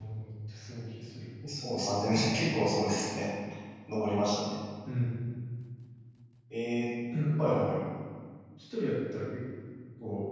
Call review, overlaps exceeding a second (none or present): none